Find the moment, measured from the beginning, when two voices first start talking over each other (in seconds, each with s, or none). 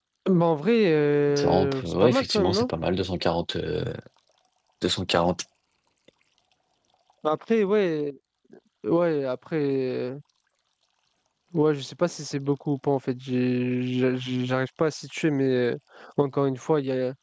1.3 s